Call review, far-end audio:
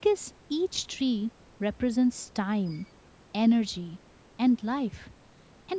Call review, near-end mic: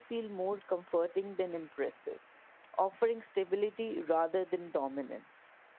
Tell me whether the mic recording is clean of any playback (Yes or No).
Yes